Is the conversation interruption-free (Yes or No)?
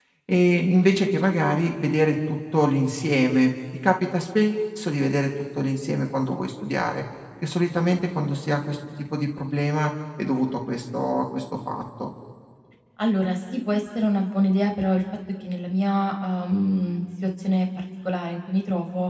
Yes